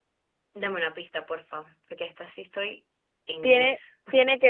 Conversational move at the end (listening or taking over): taking over